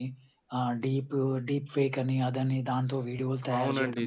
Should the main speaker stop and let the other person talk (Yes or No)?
Yes